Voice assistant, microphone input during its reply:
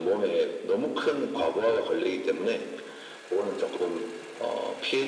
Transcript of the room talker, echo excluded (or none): none